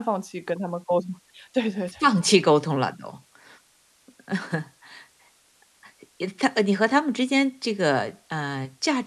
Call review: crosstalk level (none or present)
none